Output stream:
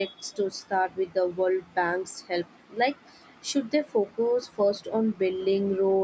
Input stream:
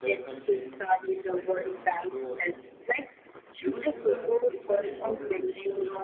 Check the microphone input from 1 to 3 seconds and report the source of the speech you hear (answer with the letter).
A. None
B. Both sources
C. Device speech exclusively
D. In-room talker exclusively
B